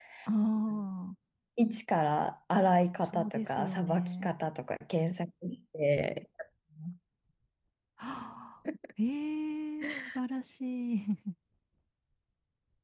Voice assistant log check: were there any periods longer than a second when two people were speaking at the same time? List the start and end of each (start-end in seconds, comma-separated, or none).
3.0-4.3